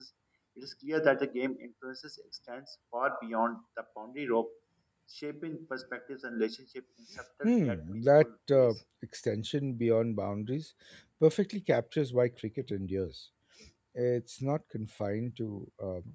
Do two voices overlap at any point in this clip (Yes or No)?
Yes